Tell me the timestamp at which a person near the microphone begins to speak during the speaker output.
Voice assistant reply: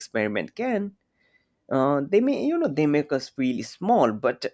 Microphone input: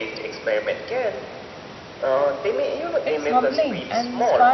3.0 s

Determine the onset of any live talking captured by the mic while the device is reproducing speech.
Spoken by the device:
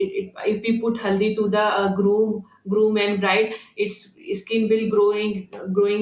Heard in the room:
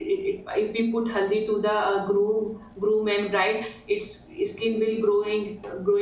none

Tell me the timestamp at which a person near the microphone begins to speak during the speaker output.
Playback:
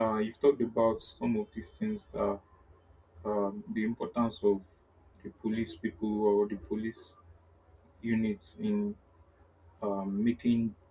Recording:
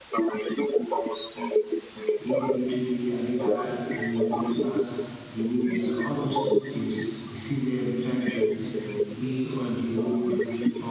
2.2 s

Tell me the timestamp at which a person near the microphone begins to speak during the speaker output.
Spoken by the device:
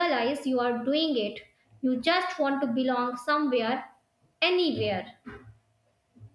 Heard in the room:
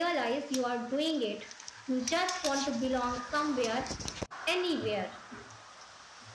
none

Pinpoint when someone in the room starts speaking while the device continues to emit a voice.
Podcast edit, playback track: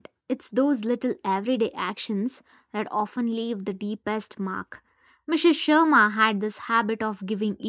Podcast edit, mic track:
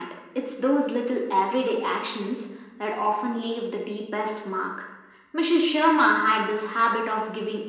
none

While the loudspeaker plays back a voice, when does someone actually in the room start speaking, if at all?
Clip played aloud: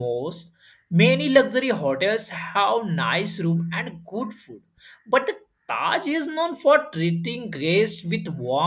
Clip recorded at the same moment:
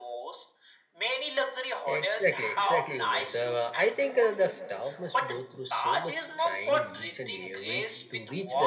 1.9 s

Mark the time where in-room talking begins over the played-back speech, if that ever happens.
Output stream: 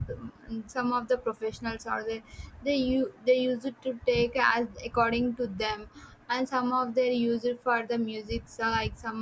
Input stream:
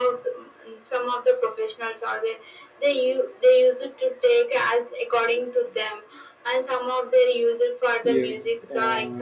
8.0 s

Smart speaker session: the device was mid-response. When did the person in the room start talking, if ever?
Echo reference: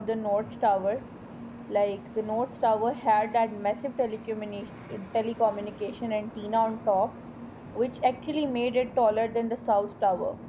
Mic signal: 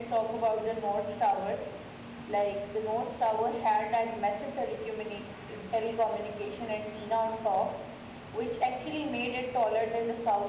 none

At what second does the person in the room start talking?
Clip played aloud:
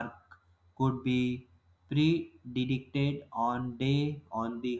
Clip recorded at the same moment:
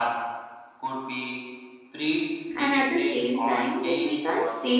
2.5 s

